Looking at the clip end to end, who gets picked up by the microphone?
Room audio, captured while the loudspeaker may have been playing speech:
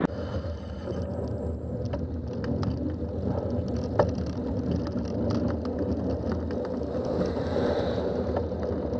neither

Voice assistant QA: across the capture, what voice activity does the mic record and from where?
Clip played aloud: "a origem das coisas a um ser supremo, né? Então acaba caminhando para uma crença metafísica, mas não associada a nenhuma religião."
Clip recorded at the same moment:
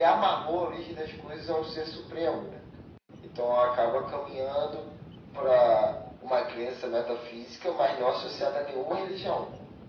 echo only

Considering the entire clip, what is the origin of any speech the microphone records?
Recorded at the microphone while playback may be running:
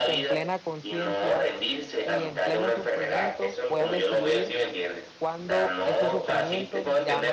both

